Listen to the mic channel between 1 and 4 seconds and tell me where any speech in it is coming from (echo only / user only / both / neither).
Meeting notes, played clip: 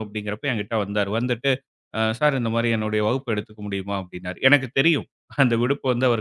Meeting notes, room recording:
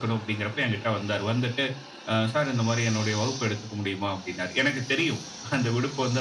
echo only